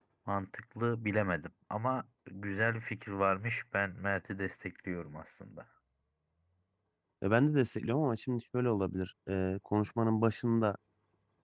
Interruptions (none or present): none